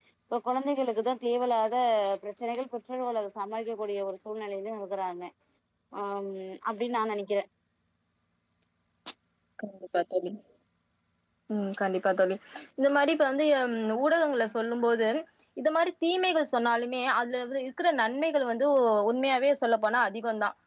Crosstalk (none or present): none